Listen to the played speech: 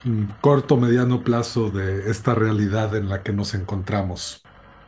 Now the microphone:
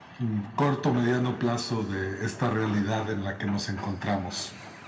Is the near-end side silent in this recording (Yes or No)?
Yes